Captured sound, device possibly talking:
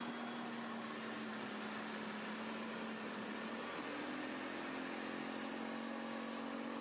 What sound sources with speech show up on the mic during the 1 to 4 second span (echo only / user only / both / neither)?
neither